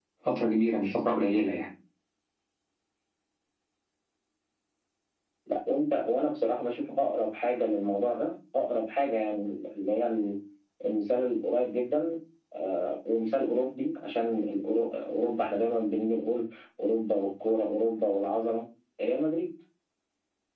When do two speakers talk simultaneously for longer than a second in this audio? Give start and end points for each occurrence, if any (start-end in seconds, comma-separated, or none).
none